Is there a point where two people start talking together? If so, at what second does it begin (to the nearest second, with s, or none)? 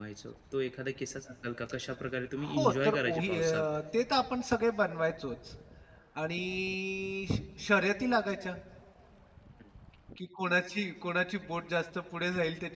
2 s